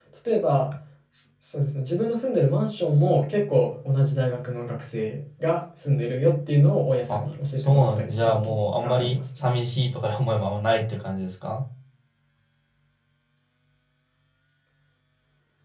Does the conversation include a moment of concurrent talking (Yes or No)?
Yes